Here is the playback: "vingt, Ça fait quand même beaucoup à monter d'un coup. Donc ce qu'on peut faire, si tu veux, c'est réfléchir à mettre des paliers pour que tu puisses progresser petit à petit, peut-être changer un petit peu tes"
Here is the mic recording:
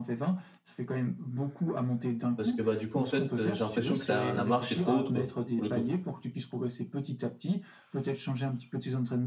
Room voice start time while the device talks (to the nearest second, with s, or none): 2 s